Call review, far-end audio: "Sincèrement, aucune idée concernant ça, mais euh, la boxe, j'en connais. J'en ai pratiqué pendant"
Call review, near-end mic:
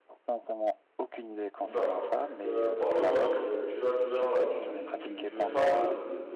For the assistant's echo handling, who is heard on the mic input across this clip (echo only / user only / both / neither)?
both